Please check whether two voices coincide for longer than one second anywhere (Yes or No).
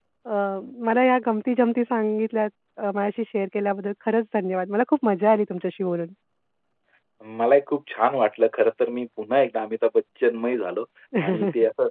No